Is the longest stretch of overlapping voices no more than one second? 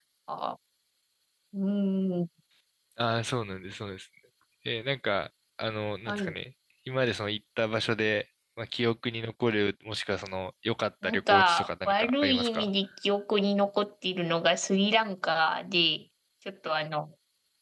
No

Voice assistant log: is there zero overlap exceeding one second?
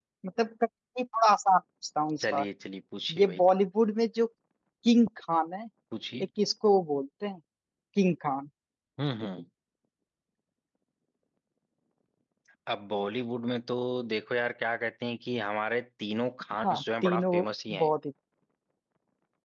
No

